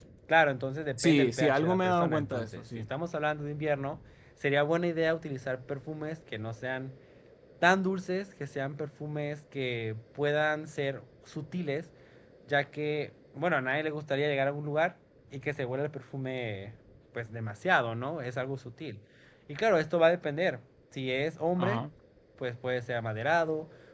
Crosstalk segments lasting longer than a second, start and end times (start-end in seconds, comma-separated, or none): 1.0-2.9